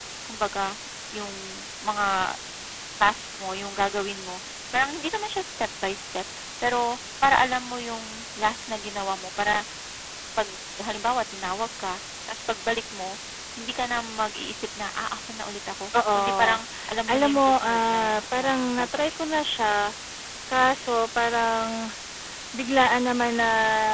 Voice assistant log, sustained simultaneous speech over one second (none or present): present